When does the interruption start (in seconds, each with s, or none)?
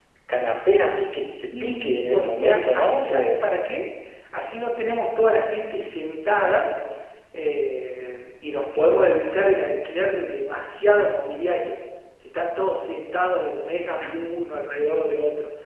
1.4 s